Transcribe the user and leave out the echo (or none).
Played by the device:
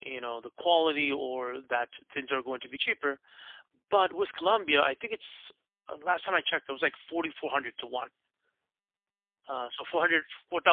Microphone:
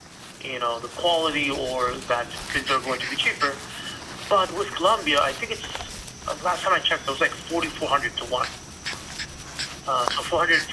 none